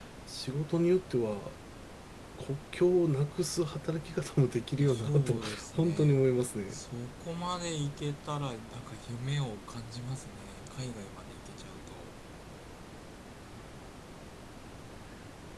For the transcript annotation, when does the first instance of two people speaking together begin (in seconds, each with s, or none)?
4.8 s